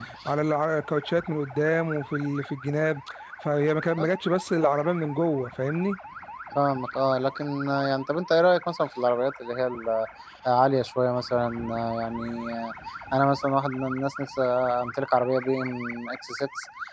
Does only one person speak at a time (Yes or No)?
Yes